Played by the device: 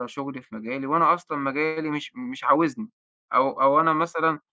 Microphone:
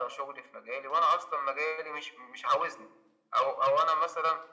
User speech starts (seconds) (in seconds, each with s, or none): none